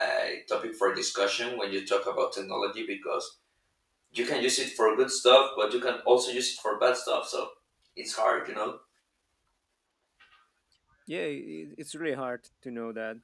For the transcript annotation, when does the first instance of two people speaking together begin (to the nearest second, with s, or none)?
none